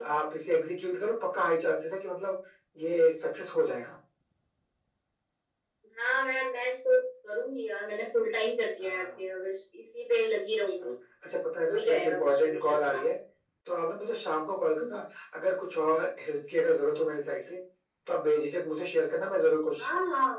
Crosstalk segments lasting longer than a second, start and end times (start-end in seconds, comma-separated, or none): 11.7-13.0